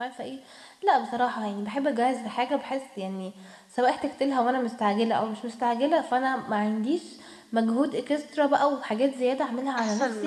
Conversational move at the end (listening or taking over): taking over